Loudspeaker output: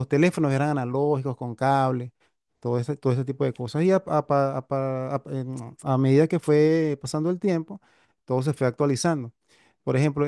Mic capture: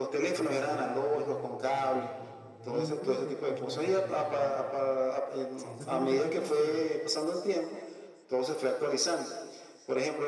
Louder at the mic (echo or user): echo